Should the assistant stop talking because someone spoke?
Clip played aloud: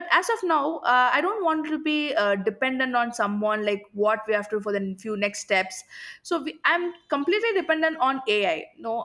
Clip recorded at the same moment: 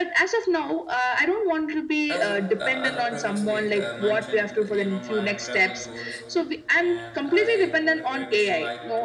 Yes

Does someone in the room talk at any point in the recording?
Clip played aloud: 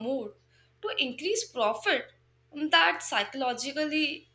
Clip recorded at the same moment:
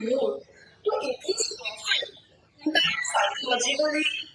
No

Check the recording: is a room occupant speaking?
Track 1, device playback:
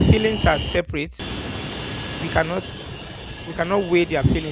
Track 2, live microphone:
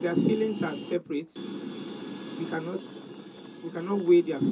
No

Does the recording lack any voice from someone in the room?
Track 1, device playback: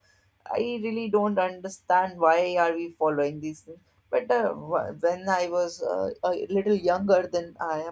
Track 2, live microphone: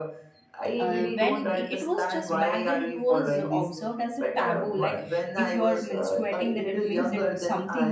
No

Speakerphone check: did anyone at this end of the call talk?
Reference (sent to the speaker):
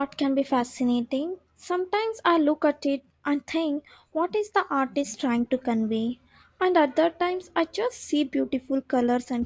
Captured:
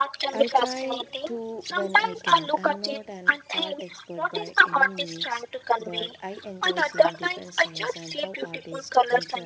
Yes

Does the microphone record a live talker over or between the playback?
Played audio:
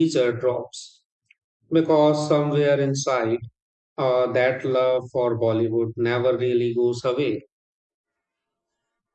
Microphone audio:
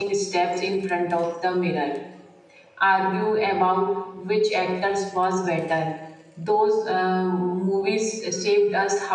Yes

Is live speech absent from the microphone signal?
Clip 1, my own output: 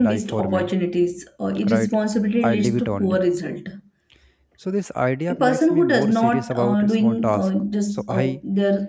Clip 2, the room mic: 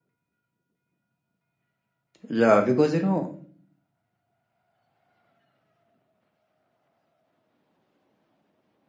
No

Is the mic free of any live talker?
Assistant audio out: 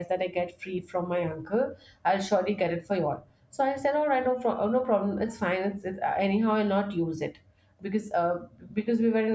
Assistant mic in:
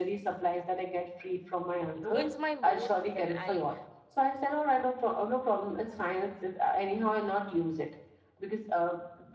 No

